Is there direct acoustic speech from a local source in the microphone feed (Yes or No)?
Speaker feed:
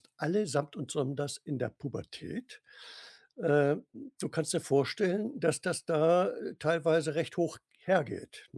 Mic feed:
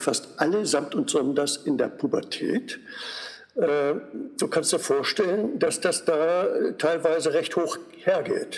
No